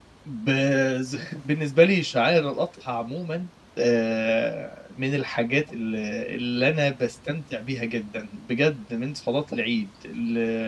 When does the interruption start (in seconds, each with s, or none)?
none